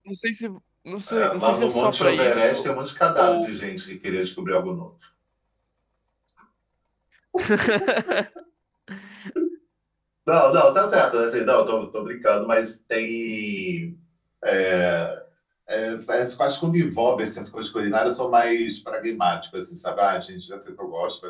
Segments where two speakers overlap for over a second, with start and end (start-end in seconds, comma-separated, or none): 1.1-2.6